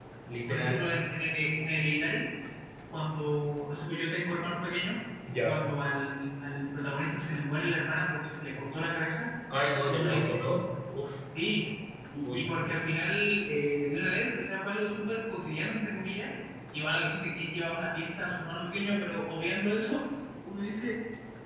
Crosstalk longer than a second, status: none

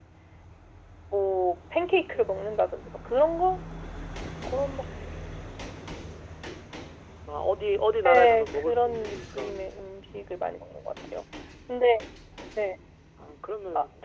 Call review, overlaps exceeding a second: present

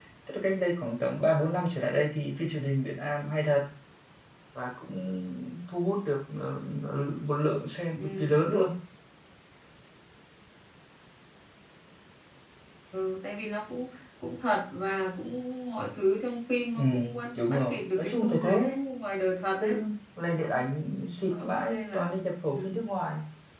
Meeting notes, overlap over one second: present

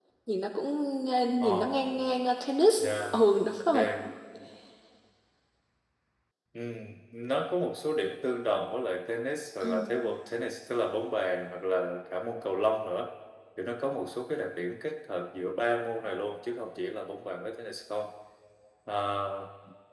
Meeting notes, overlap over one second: none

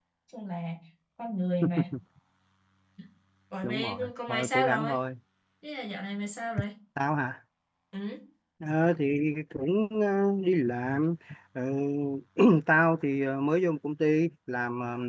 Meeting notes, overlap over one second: present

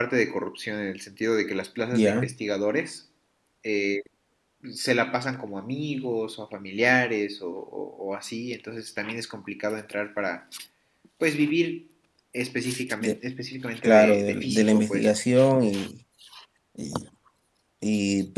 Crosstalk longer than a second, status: present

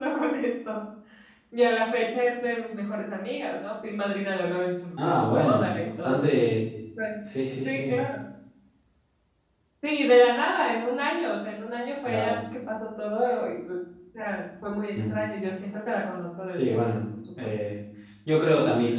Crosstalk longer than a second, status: present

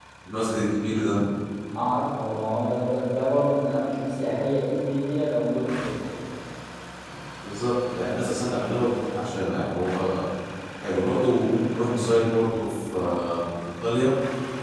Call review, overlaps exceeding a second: none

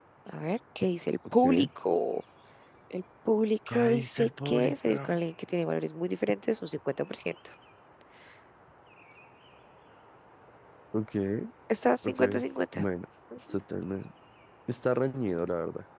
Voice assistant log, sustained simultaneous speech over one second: present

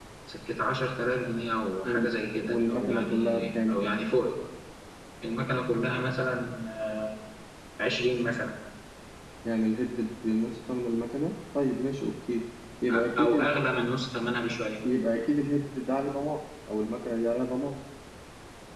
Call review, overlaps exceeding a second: present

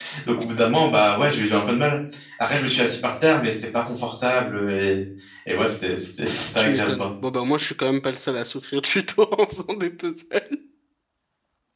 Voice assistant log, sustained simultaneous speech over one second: none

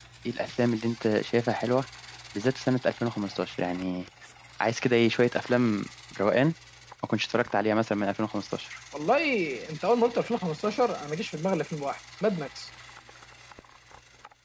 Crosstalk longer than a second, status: none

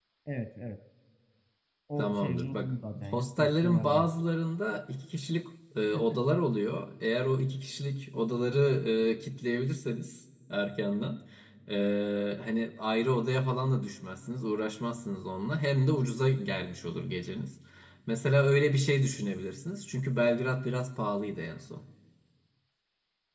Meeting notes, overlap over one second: present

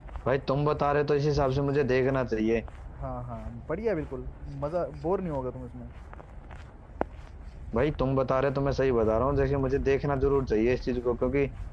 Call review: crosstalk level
none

